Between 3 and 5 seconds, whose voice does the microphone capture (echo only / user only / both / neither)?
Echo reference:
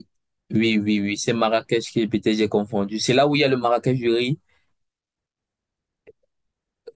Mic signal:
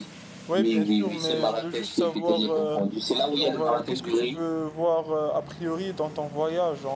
both